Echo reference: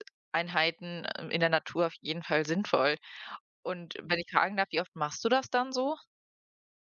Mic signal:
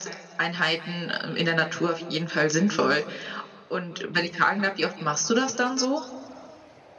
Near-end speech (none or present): none